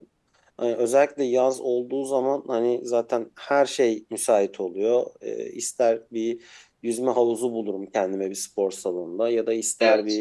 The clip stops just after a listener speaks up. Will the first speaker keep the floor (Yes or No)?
Yes